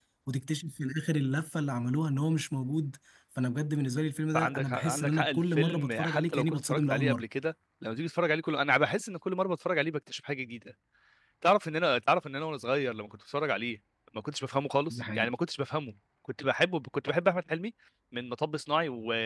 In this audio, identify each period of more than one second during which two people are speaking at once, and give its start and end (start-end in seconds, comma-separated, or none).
4.3-7.2